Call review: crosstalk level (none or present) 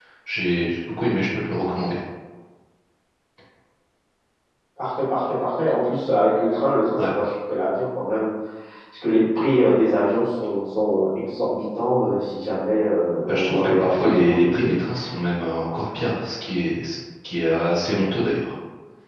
present